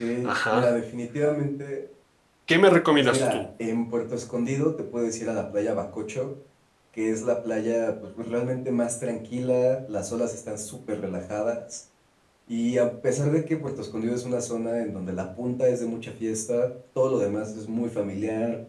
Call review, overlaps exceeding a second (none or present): none